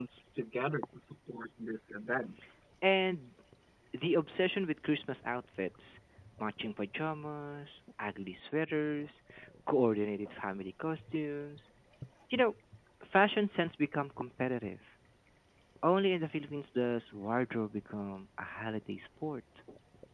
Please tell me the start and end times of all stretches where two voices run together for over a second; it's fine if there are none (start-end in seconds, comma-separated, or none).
none